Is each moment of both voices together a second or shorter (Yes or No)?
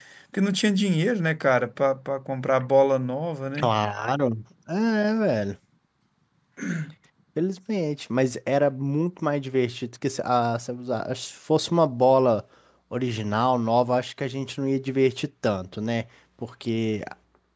Yes